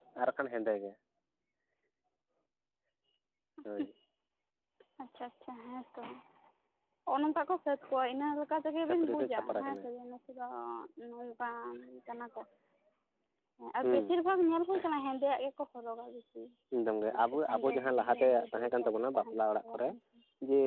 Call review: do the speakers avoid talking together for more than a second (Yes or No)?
No